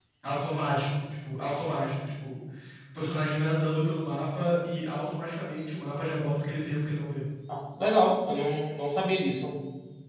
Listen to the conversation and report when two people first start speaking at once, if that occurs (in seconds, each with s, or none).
none